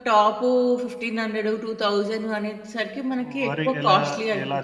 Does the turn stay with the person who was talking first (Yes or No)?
No